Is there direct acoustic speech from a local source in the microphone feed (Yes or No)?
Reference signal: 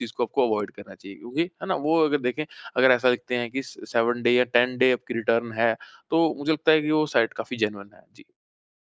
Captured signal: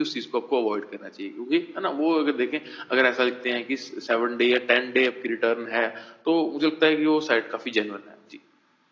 No